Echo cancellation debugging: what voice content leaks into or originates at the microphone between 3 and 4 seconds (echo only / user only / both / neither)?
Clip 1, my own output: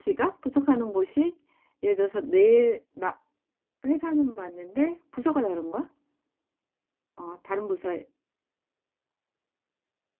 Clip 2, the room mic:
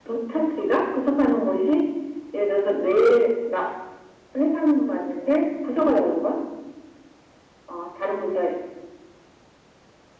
echo only